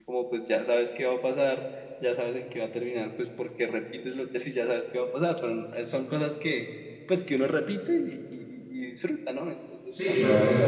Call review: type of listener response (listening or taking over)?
taking over